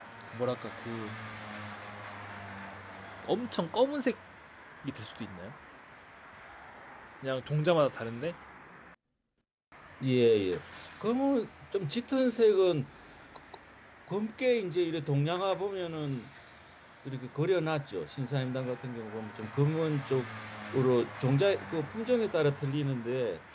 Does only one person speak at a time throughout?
Yes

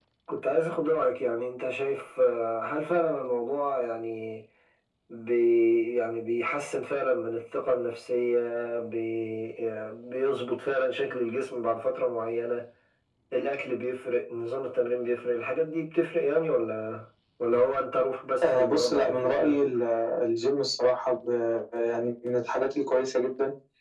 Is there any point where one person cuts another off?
Yes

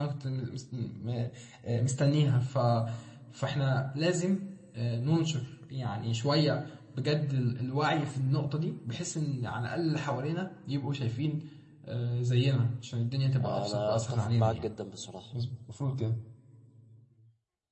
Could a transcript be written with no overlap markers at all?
No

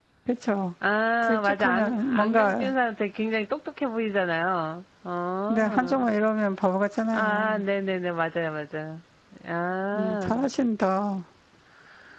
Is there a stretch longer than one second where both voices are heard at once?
Yes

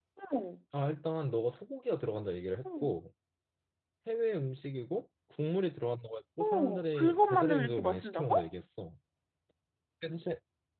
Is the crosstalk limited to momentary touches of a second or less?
No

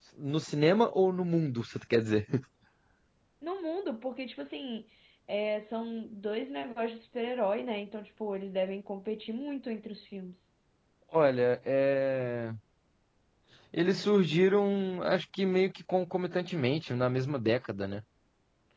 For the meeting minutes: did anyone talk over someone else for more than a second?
No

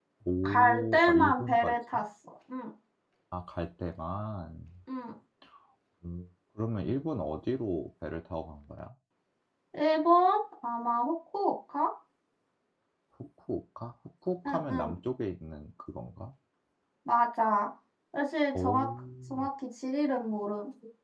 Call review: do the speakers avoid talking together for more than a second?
No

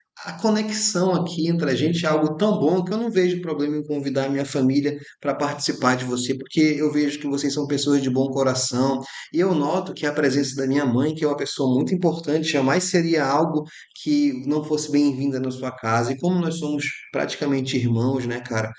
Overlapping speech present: No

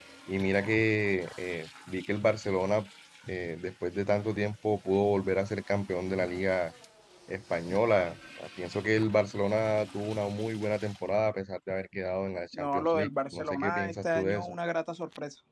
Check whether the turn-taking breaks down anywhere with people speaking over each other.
Yes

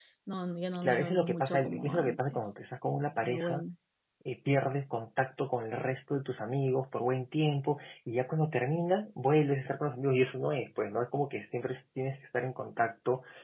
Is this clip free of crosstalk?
No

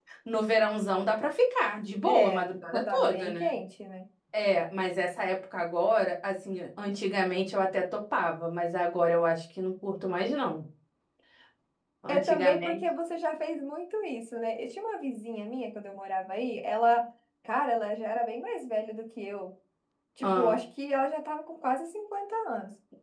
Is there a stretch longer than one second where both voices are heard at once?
Yes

